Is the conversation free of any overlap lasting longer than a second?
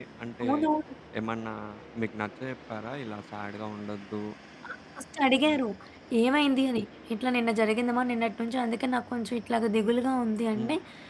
Yes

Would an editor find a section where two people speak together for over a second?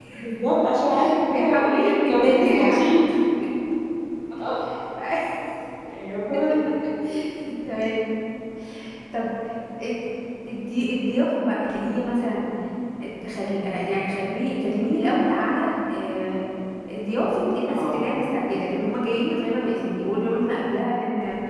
Yes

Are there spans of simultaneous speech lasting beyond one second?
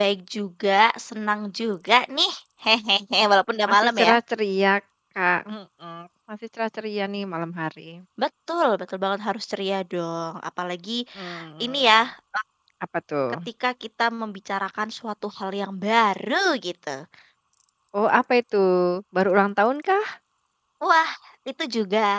No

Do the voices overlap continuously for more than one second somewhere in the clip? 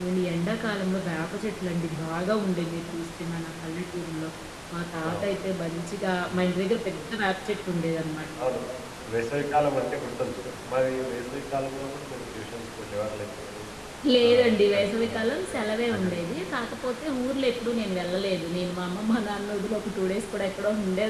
Yes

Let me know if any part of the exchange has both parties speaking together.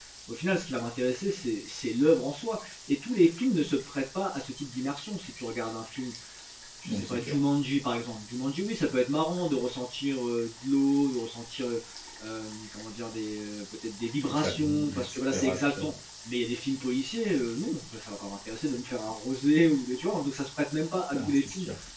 Yes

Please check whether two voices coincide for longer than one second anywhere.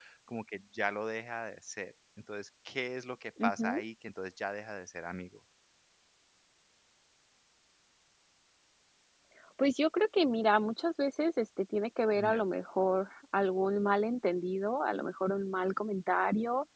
No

